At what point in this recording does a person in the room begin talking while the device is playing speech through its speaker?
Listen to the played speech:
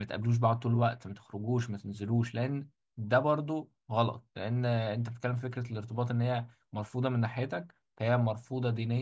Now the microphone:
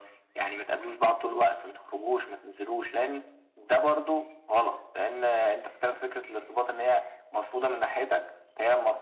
none

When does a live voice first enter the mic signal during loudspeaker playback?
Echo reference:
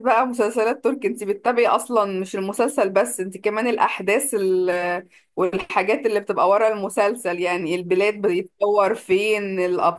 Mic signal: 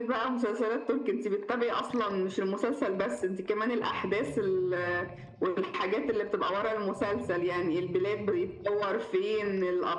none

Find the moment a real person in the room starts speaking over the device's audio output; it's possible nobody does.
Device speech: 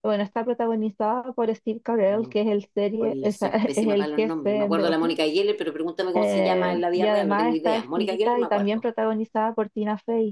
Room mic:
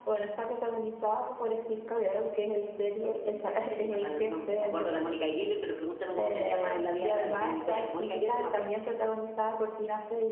none

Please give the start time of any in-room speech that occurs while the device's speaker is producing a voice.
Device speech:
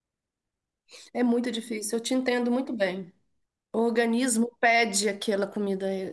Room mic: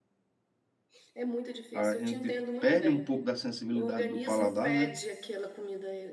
1.7 s

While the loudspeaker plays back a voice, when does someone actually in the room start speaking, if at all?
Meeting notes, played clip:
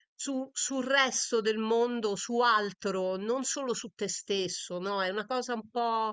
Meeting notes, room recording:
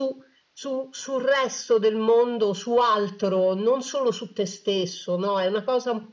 none

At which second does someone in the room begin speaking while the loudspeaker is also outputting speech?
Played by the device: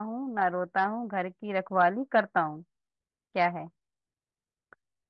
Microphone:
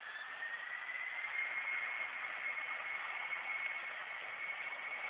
none

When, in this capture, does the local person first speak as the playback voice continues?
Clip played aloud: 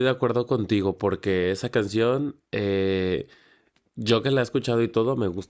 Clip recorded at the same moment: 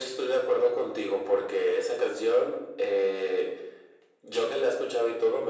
none

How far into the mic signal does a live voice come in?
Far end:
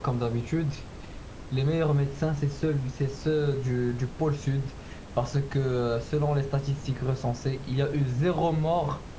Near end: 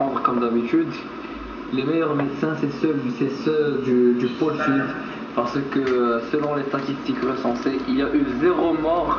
4.2 s

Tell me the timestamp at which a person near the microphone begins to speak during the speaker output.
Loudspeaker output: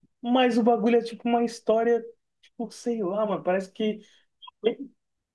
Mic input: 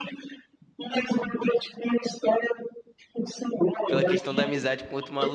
3.9 s

